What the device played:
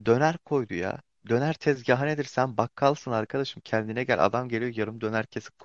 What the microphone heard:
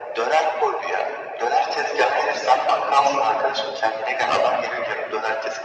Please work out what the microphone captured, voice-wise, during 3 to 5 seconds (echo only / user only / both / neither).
echo only